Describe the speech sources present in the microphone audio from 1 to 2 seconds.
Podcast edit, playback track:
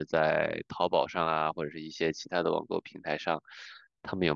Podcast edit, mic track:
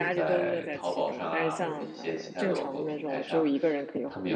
both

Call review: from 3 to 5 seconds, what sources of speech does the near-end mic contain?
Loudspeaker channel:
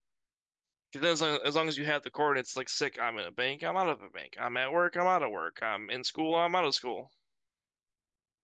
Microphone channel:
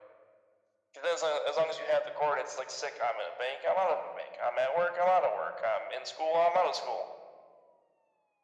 echo only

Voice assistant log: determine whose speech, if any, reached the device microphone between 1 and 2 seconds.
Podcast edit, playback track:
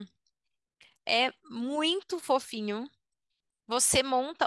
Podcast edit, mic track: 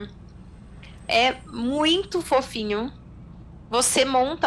echo only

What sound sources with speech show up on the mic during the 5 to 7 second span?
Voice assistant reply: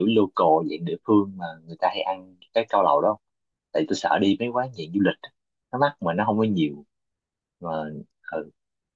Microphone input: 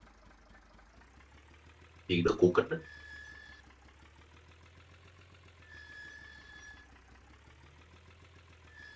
neither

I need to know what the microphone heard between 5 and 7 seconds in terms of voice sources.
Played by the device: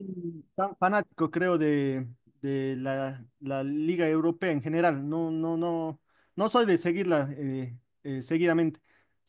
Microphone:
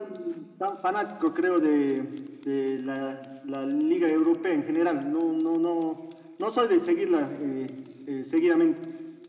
echo only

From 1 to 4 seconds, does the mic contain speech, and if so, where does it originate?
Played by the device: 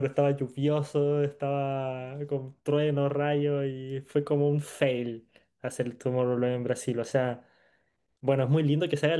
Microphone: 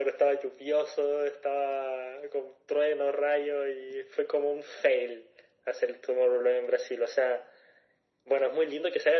echo only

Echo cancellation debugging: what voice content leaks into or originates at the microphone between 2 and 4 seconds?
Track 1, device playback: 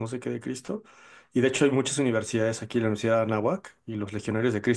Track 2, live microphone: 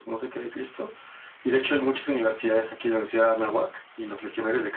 echo only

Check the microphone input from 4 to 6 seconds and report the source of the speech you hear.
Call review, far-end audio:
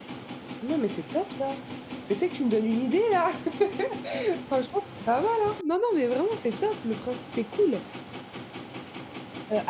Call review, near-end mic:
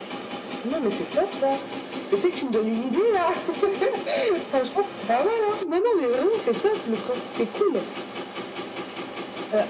echo only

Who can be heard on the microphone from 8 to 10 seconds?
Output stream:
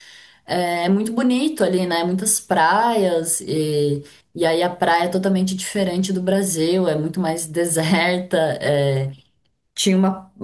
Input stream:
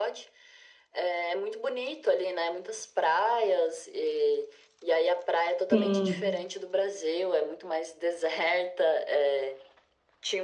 echo only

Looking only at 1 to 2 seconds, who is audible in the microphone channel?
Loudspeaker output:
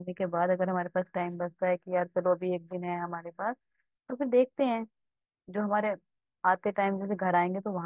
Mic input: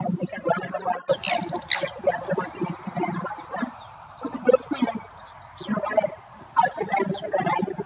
echo only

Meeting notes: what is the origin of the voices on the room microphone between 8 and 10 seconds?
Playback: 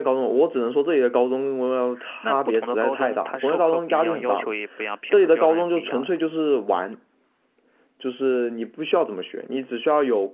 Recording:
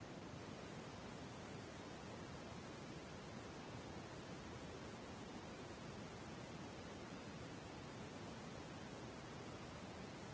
neither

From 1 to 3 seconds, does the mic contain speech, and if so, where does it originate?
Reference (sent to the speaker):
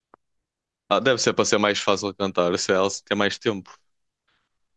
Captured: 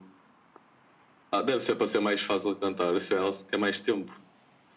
echo only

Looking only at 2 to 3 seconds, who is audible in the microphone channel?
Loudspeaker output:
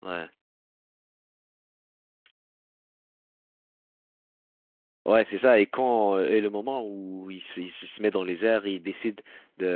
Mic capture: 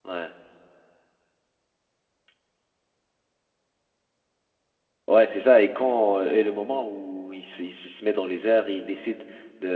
neither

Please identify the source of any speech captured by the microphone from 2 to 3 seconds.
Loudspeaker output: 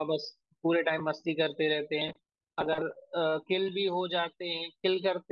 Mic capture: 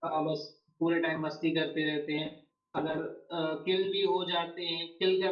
echo only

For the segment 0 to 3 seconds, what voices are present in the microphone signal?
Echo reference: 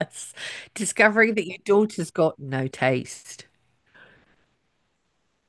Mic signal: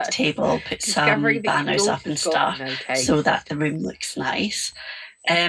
both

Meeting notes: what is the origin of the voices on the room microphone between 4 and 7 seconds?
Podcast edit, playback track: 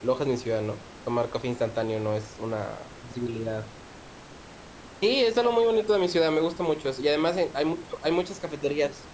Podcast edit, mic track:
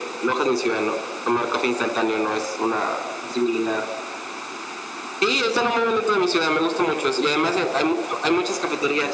echo only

